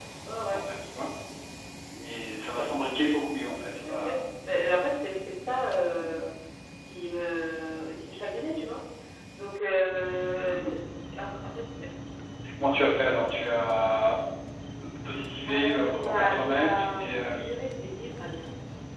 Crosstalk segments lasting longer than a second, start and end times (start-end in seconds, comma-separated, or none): 15.5-17.4